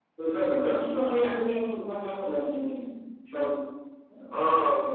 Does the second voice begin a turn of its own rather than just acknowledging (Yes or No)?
Yes